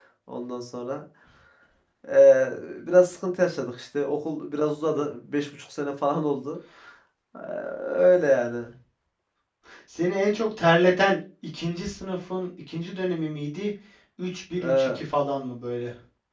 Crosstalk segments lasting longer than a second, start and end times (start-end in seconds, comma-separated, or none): none